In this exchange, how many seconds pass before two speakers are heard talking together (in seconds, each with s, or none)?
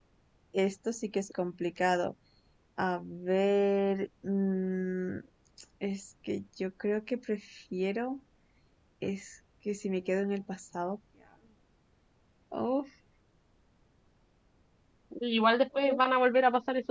none